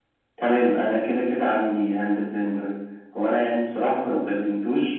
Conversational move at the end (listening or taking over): listening